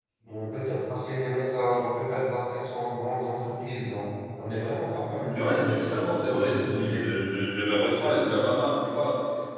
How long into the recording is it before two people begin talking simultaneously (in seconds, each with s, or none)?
5.4 s